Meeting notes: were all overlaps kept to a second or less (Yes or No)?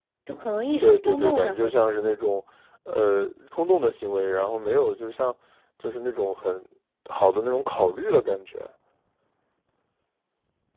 No